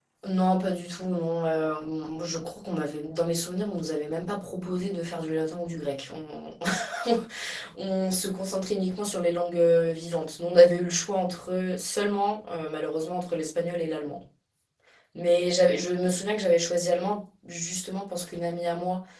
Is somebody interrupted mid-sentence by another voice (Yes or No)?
No